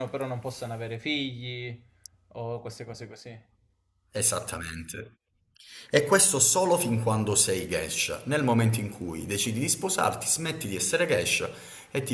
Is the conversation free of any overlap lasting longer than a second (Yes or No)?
Yes